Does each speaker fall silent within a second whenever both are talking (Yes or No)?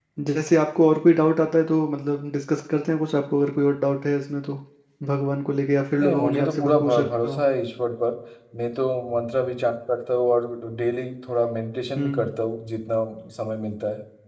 No